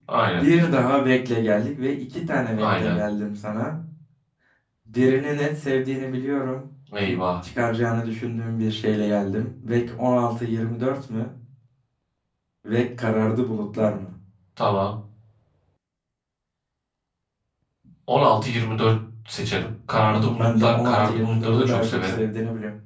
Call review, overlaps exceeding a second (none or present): present